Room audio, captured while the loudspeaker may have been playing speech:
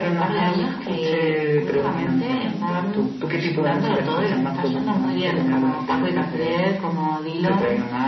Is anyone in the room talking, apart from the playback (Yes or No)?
No